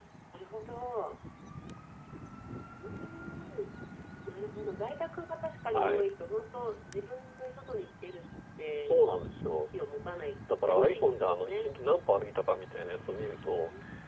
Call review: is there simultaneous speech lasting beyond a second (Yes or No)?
Yes